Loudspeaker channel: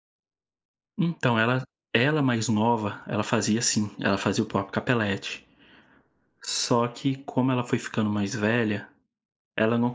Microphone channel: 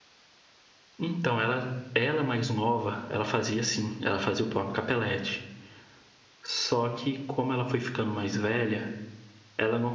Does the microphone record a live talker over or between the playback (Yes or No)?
No